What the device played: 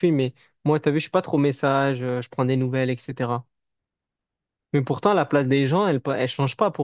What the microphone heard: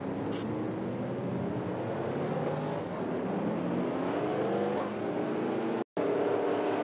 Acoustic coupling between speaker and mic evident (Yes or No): No